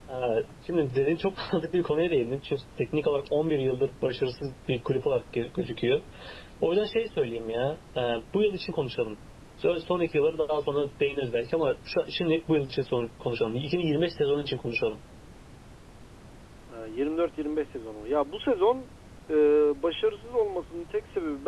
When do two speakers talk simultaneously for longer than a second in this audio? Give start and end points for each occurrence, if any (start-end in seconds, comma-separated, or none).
none